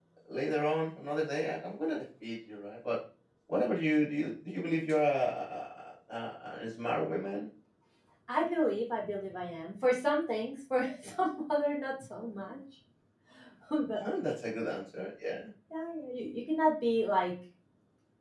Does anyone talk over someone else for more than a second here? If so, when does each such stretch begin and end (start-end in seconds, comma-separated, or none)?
none